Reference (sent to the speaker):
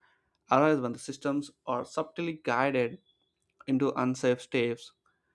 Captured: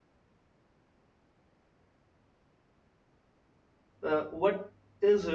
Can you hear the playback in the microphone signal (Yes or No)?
No